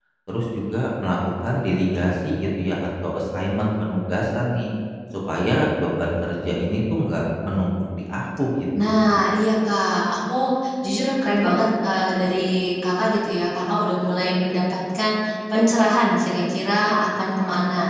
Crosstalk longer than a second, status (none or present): none